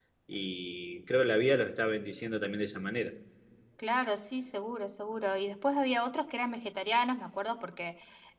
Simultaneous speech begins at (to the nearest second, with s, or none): none